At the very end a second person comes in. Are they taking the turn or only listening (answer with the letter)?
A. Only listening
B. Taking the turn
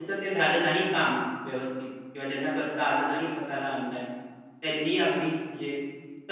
A